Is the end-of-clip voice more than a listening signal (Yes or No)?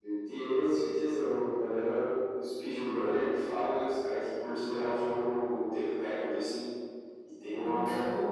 No